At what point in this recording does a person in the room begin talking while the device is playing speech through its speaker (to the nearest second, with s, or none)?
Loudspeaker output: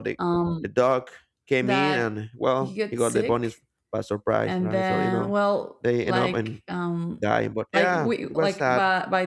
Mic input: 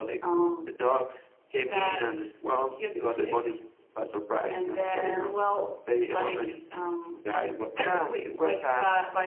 none